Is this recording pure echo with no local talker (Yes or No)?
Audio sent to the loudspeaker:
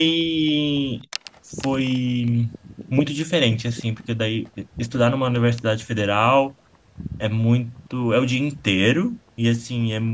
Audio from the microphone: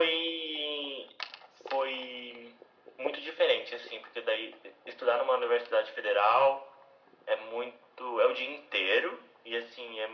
Yes